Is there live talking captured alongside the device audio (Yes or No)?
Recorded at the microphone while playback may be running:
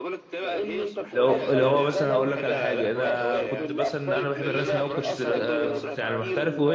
Yes